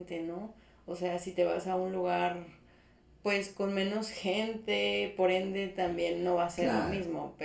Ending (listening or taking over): listening